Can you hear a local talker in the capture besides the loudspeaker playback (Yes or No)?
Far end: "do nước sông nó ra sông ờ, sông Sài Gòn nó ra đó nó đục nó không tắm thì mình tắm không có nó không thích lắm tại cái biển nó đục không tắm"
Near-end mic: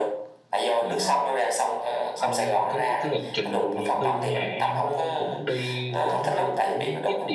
Yes